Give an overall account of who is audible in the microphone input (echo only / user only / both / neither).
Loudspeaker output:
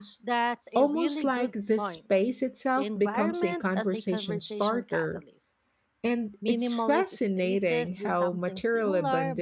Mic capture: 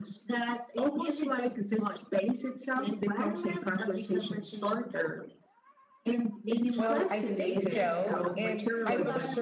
both